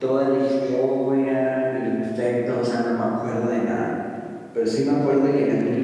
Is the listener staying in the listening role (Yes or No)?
Yes